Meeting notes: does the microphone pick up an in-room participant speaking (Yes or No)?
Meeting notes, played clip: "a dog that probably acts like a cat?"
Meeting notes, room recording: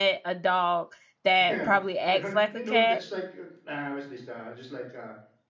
Yes